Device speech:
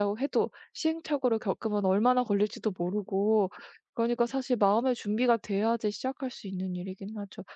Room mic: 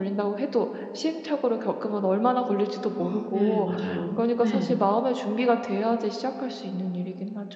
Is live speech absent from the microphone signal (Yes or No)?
No